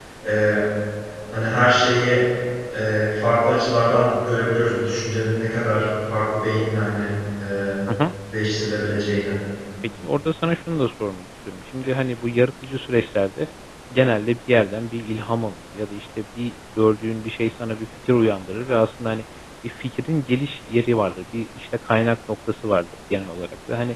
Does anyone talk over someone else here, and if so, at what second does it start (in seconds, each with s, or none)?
none